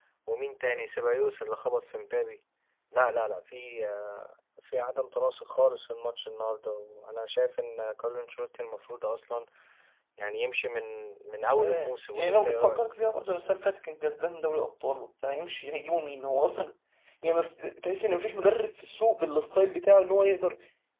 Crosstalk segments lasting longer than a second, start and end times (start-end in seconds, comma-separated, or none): 11.6-12.9